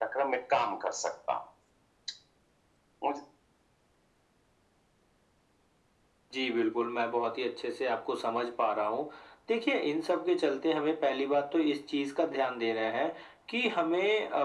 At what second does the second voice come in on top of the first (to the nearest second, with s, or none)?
none